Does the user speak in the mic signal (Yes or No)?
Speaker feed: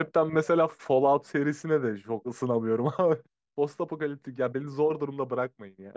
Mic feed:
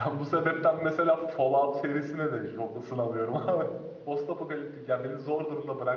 No